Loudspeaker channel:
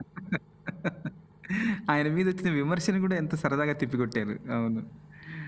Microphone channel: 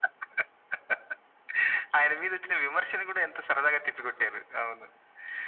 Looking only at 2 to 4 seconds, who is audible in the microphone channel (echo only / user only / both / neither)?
echo only